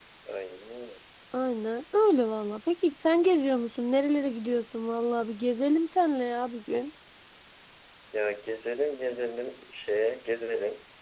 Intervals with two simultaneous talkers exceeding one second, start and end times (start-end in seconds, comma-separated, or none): none